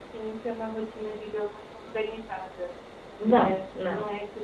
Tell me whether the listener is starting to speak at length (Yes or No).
No